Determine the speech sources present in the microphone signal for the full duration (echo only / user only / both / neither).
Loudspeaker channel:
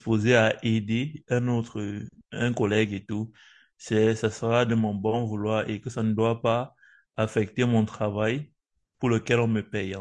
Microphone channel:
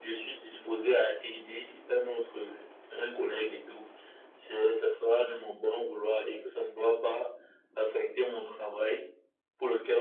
echo only